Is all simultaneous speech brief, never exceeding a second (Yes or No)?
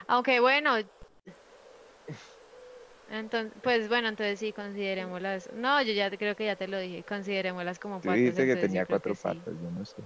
No